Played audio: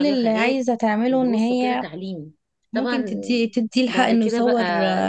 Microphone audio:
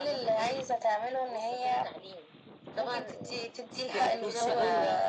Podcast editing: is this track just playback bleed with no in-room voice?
No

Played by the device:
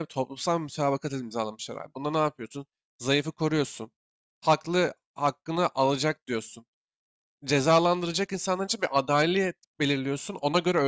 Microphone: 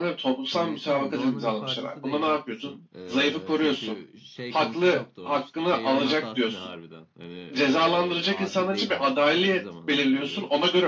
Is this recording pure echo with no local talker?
No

